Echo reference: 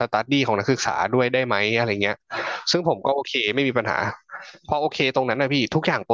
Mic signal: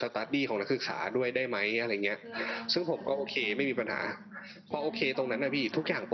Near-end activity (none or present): present